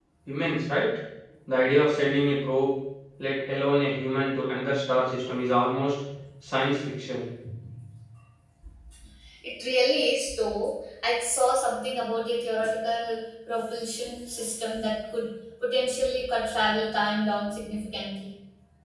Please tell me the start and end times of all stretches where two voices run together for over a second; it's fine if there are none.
none

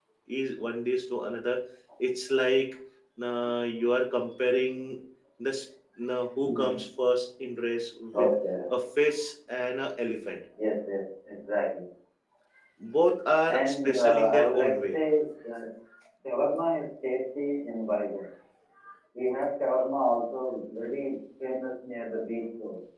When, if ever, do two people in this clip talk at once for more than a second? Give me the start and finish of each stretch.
13.5-15.0

